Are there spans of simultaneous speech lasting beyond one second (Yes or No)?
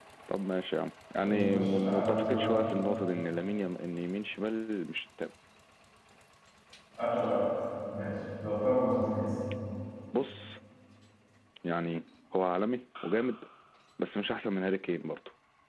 Yes